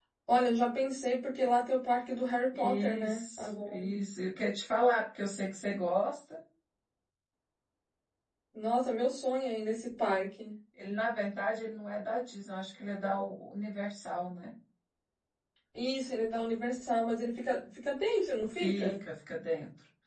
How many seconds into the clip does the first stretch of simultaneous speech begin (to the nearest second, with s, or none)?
3 s